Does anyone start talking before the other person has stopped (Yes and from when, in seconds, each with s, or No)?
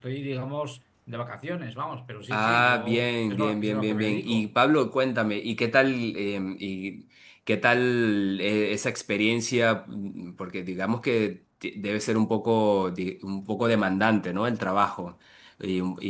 Yes, from 2.3 s